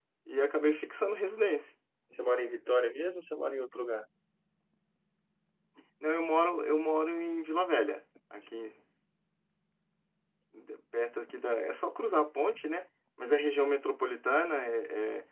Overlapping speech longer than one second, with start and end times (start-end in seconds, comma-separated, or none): none